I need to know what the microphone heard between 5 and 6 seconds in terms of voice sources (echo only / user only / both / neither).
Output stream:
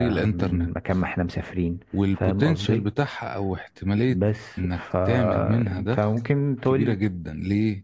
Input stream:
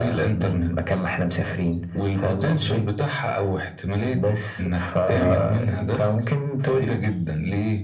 both